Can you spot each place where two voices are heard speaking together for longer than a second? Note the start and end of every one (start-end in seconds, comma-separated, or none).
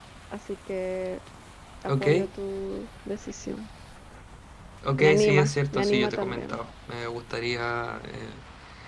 5.0-6.6